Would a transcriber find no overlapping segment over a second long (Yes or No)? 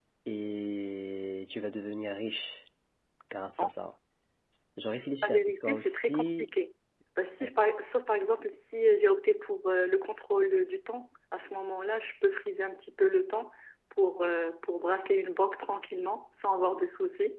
No